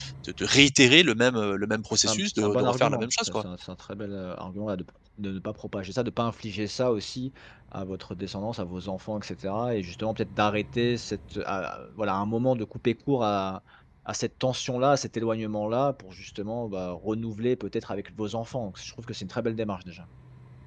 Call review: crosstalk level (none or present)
present